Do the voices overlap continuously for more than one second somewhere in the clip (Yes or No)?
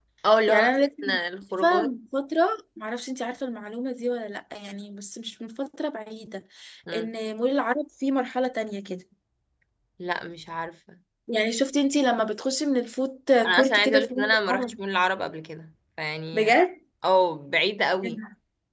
Yes